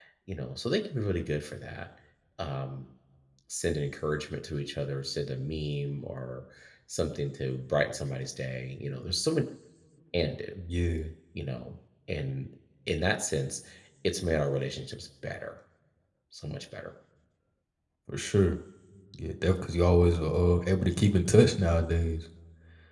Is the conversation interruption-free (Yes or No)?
Yes